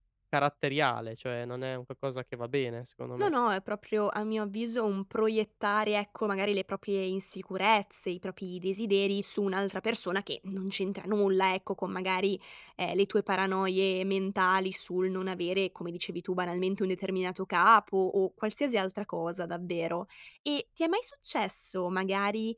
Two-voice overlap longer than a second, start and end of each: none

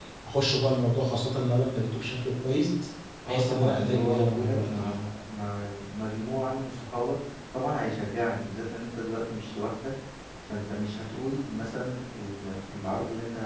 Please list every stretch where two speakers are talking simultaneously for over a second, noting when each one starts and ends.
3.3-5.0

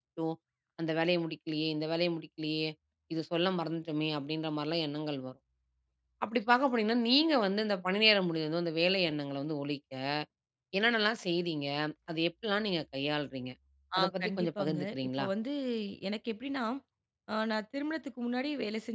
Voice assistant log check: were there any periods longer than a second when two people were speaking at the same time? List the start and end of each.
14.0-15.3

